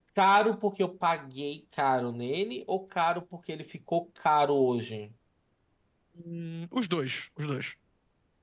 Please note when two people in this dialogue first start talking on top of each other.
none

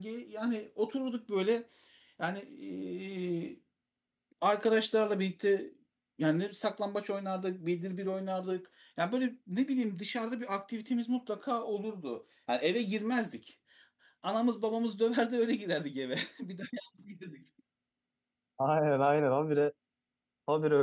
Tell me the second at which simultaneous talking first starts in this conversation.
none

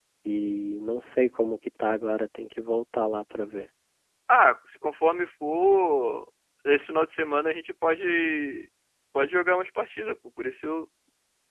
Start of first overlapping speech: none

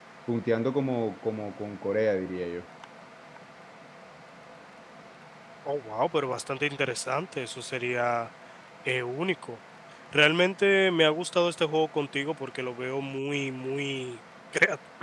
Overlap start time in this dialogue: none

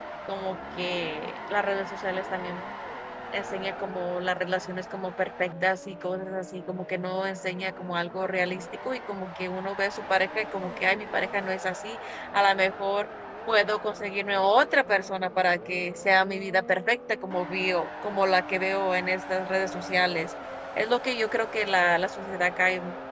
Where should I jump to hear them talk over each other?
none

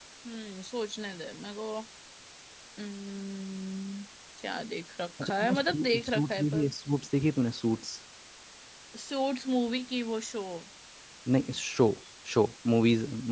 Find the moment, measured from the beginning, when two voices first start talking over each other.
5.2 s

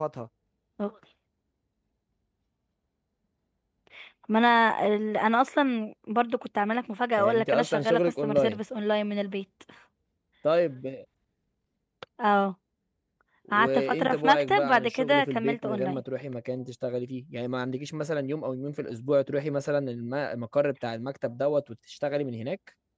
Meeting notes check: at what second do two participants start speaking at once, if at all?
7.2 s

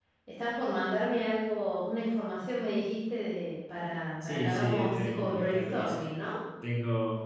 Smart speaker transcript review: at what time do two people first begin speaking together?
4.2 s

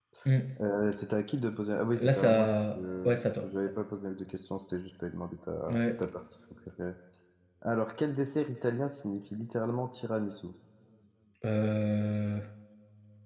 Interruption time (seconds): 2.0 s

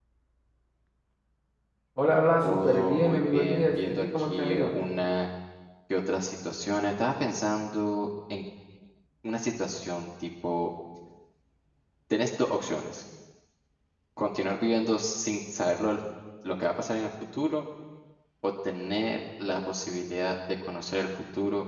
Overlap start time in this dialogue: 2.4 s

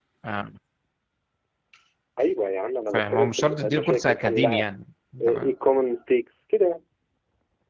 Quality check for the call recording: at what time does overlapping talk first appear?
2.9 s

